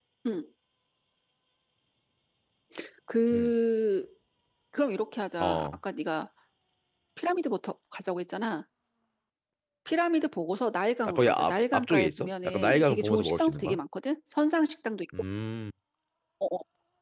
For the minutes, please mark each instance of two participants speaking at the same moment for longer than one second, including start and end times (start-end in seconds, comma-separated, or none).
11.1-13.8